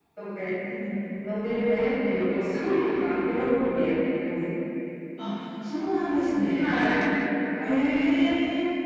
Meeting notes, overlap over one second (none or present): none